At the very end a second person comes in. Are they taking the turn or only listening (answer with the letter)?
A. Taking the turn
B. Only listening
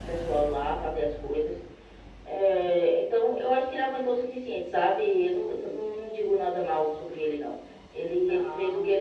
B